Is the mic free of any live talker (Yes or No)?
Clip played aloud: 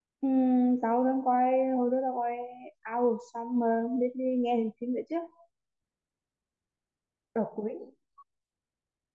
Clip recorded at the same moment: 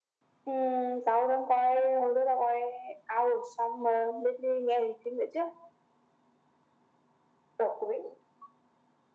Yes